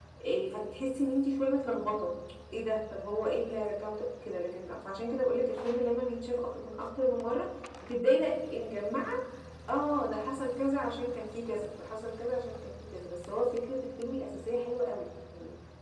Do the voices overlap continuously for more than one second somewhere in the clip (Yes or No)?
No